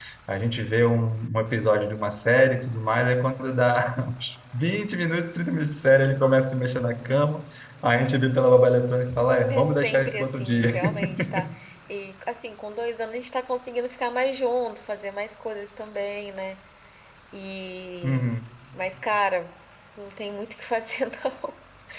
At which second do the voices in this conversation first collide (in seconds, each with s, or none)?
9.5 s